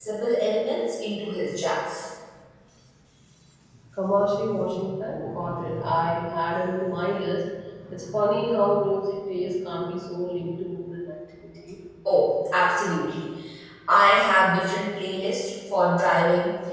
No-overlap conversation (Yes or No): Yes